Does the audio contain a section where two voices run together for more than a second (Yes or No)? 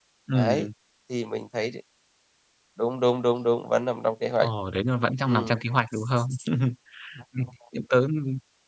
No